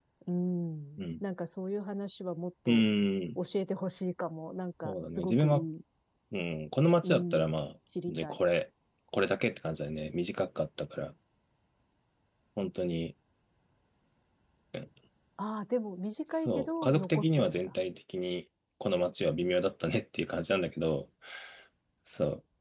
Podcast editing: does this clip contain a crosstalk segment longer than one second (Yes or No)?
Yes